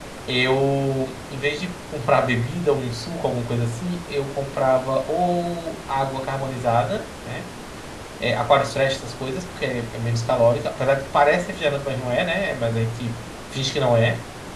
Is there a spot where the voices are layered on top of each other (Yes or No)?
No